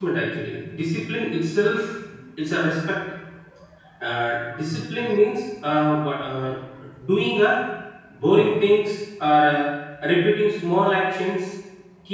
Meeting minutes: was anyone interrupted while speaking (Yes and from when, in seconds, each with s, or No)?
No